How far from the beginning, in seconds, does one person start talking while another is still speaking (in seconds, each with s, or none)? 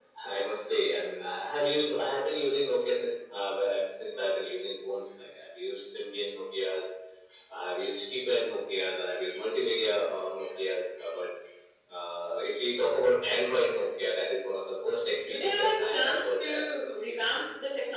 15.3 s